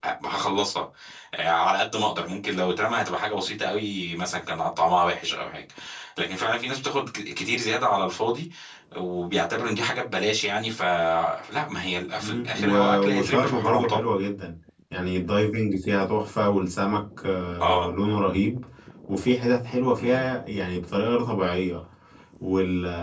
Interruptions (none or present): present